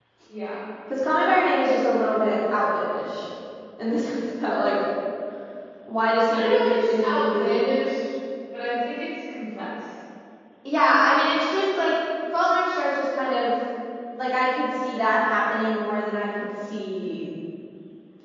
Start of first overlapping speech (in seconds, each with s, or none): 6.3 s